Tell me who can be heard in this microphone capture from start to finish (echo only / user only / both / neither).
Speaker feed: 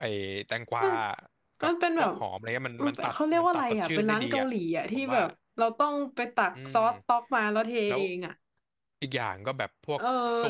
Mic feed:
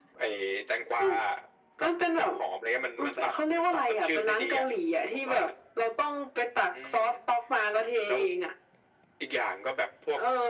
echo only